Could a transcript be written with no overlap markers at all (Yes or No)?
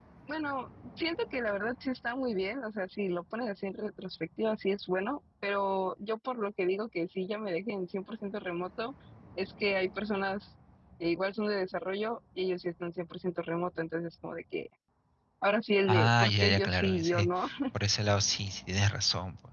No